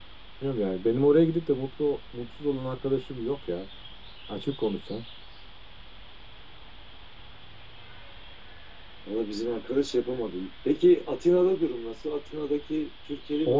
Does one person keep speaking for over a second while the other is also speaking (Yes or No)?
No